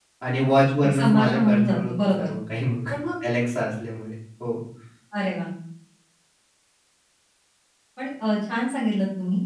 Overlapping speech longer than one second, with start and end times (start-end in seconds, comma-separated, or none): 0.8-2.3